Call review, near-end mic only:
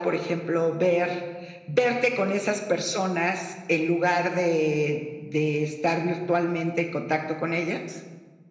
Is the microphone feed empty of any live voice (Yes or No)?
Yes